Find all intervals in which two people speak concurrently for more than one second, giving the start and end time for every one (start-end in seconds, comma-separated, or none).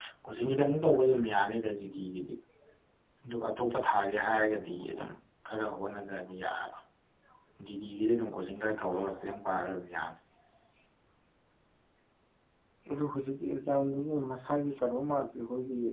none